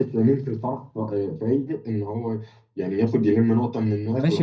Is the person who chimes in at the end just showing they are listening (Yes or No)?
No